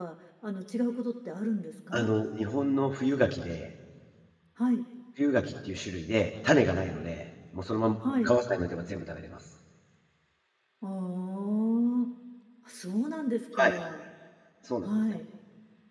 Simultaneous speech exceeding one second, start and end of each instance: none

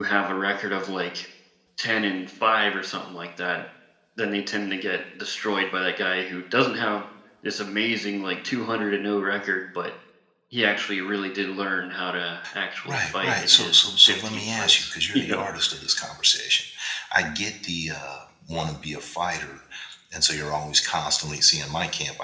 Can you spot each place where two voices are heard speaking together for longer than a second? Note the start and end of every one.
12.9-15.4

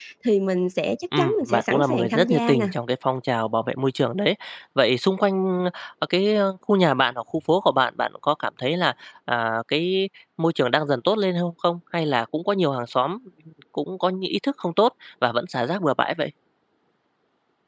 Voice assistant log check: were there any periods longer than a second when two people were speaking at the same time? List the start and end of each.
1.2-2.6

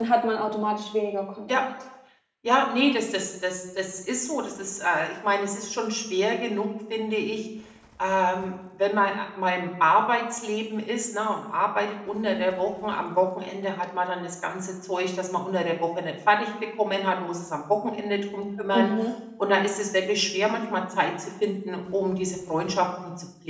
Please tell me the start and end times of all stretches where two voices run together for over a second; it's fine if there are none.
none

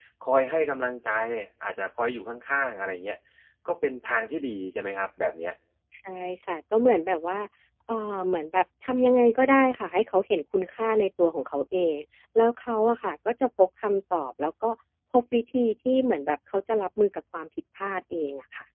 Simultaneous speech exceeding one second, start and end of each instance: none

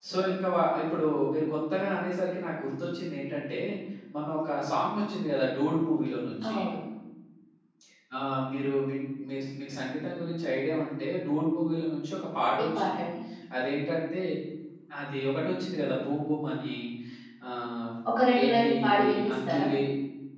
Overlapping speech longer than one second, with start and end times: 18.4-19.6

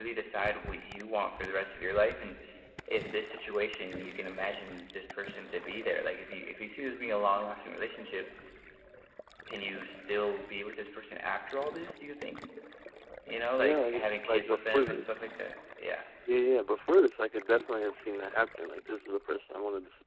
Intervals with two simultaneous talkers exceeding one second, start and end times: 13.6-15.1

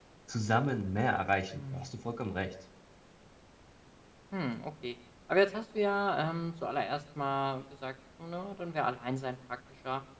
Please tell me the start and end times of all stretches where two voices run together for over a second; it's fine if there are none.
none

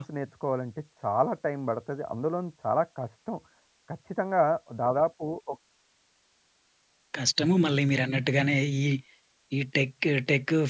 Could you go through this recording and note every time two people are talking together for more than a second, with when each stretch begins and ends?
none

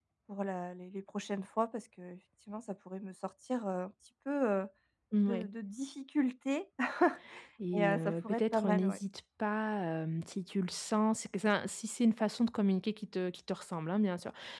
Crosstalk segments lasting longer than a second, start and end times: 7.7-9.0

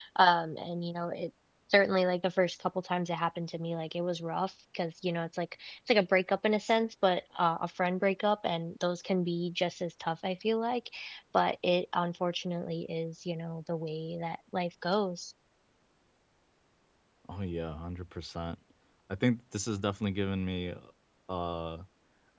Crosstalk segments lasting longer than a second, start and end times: none

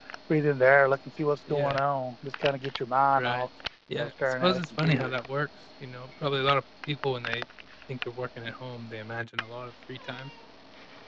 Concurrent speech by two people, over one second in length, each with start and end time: 3.9-5.2

